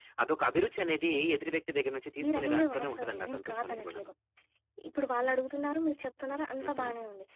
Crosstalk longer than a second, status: present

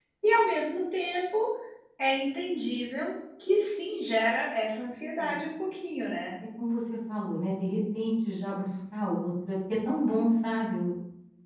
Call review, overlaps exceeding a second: none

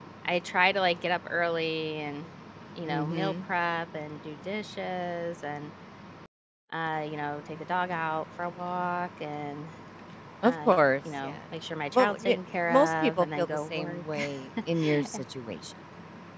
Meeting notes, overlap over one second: present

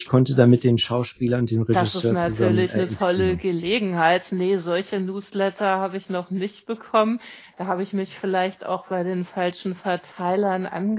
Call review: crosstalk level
present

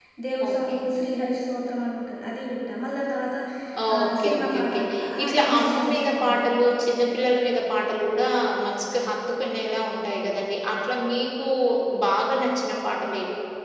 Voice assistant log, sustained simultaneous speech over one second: present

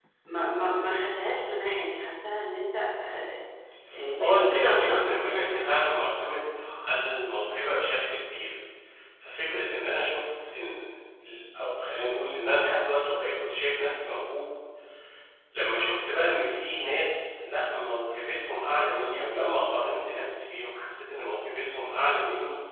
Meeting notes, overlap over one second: present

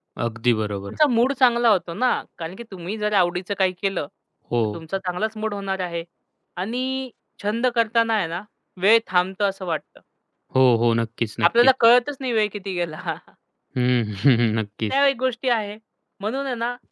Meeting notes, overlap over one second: none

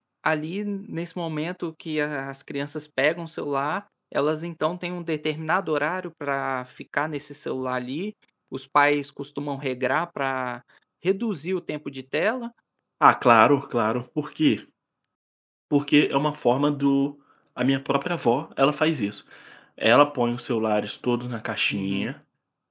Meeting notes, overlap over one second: none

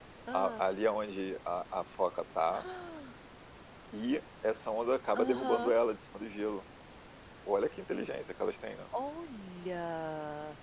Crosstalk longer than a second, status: none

